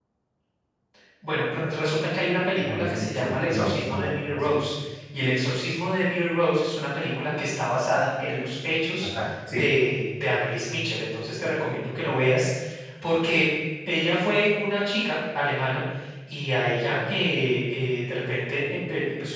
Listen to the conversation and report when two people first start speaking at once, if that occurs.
2.6 s

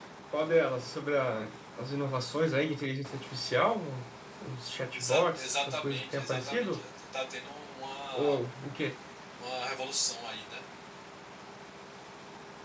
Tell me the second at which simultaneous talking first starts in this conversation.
4.9 s

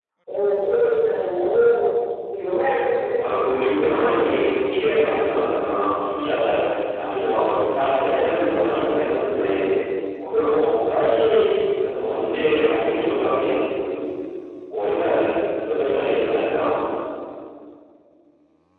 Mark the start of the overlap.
3.1 s

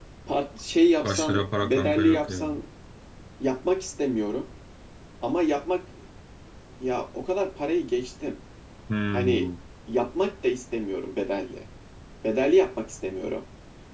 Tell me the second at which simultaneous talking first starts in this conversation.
1.0 s

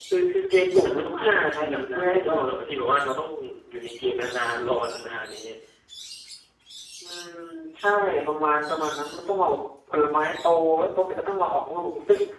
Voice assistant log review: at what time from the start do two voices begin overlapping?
0.7 s

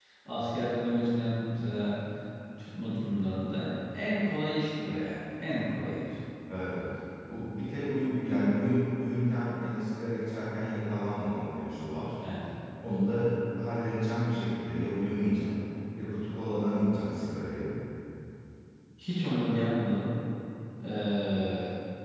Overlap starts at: none

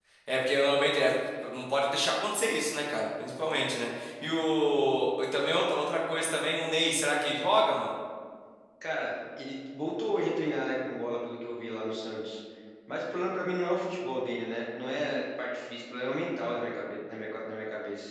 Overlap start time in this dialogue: none

